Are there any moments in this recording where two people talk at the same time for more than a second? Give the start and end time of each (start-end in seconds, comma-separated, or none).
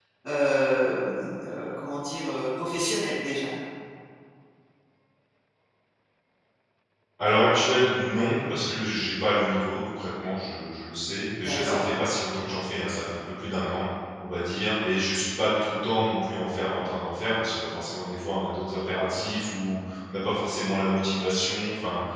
none